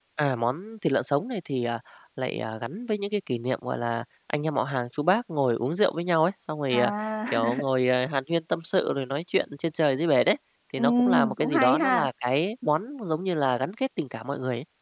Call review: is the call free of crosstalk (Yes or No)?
No